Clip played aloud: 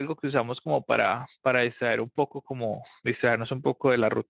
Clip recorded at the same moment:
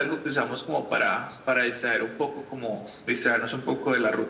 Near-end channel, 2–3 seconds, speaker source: echo only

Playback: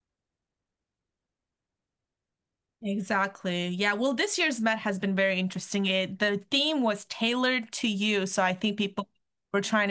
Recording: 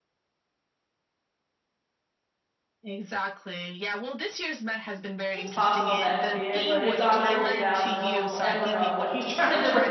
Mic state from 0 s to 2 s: neither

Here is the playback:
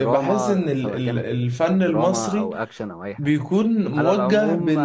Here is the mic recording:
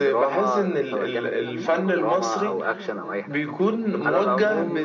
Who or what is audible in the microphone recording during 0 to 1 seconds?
echo only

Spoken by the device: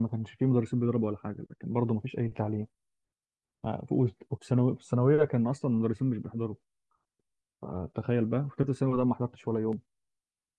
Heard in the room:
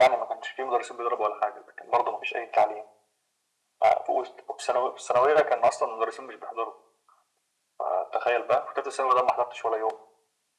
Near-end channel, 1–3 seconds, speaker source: echo only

